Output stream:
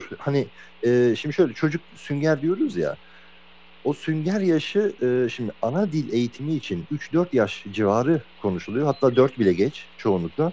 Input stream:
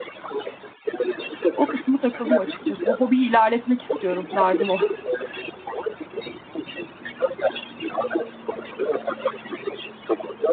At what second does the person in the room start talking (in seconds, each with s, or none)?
1.5 s